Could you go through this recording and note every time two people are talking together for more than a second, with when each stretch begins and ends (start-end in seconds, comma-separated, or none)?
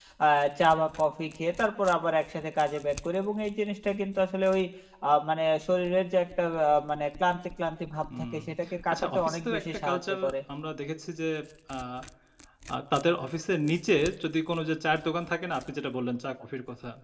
8.9-10.3